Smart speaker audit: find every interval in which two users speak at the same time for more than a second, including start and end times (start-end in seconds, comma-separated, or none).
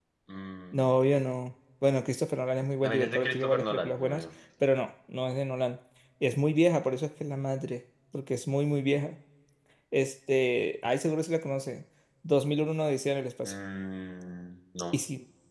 2.8-4.2